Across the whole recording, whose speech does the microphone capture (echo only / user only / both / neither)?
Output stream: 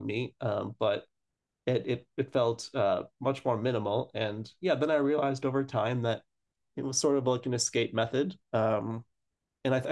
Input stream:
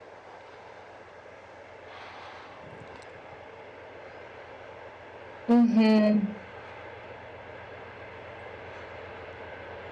user only